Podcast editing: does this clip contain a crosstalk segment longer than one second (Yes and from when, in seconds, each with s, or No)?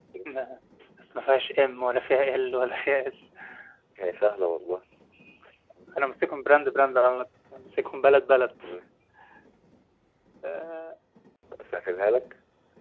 No